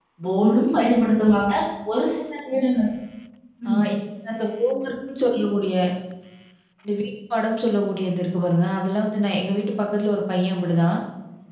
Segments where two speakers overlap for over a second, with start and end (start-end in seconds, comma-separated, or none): none